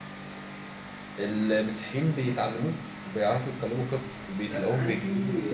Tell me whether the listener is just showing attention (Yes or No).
No